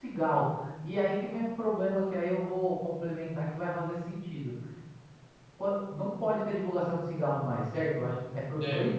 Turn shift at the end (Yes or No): No